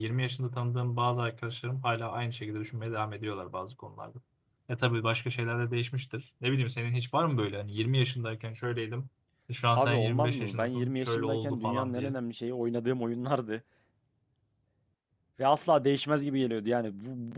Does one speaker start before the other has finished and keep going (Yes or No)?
Yes